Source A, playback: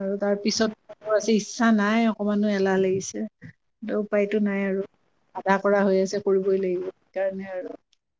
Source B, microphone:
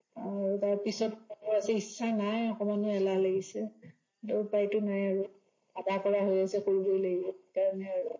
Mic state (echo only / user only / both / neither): echo only